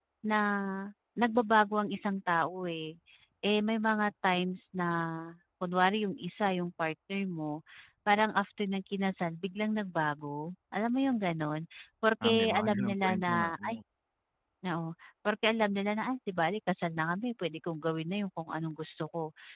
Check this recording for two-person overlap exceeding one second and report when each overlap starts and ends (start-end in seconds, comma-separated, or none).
12.2-13.8